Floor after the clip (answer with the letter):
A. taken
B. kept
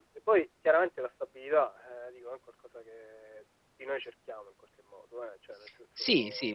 A